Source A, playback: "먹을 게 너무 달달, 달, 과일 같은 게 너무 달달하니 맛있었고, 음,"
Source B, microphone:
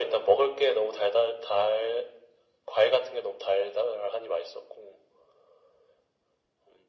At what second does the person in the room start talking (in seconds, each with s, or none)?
none